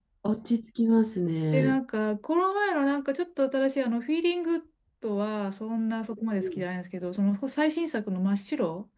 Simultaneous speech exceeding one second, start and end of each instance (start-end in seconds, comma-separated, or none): none